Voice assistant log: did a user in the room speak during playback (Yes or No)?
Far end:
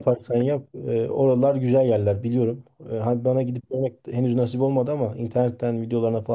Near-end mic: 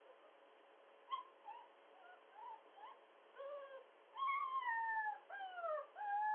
No